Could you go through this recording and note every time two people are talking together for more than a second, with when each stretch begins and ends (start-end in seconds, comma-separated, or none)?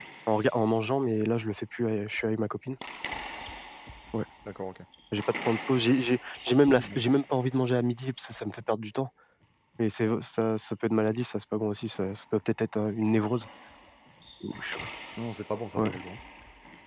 none